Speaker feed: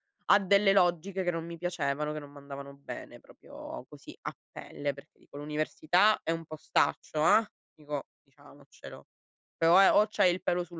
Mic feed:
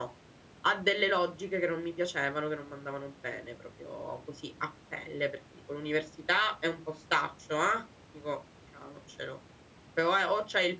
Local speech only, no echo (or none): none